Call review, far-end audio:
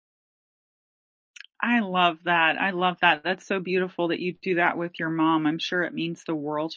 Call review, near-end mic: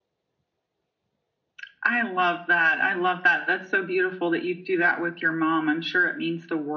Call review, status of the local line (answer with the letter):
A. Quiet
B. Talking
A